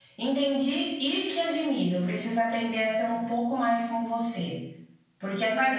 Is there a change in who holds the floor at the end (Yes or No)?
No